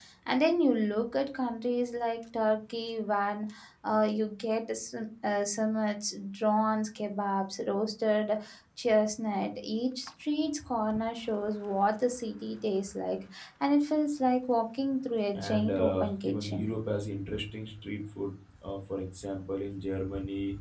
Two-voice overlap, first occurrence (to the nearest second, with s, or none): 15 s